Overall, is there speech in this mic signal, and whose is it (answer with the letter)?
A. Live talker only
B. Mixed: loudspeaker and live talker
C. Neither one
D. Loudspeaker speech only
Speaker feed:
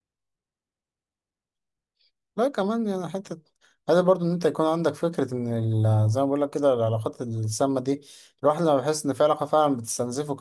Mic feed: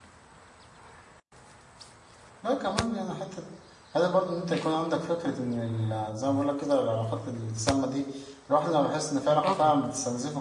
B